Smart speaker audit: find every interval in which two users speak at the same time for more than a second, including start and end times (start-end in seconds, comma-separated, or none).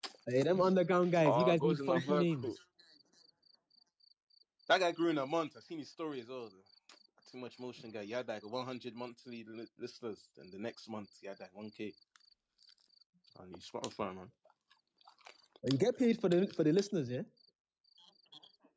1.2-2.5